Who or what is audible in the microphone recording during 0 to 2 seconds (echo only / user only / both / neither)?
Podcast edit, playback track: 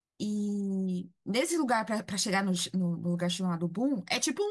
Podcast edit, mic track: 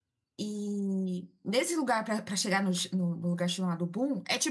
echo only